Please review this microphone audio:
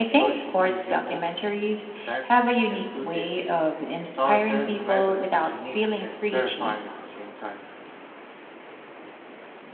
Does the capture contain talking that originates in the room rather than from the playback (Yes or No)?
Yes